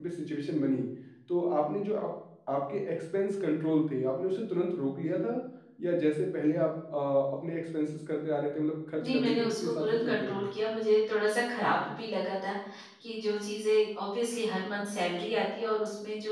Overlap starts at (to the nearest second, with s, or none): 9 s